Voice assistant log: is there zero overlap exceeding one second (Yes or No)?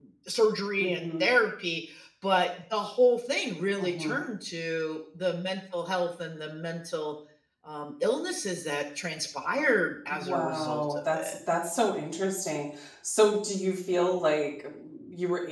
No